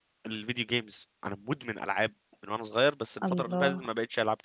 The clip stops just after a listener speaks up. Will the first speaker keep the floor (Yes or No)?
Yes